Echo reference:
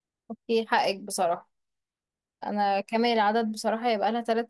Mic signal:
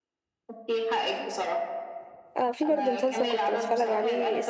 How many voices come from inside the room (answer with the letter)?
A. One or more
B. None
A